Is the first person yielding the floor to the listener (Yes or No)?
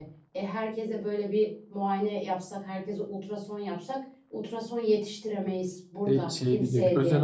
Yes